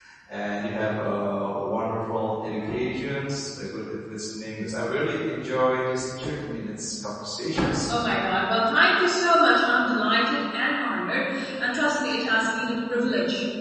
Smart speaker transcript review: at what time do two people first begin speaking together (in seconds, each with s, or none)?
none